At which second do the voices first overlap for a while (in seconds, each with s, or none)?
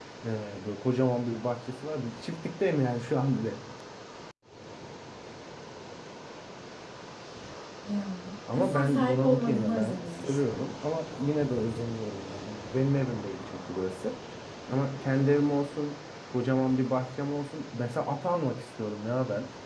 8.5 s